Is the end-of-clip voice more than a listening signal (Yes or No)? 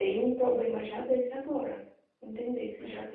No